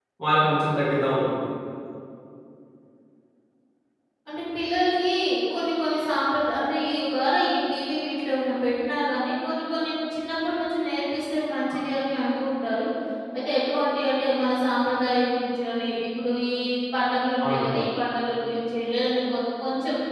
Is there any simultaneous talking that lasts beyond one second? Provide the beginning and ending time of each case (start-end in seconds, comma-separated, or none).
none